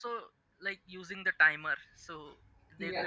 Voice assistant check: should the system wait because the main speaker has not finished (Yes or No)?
No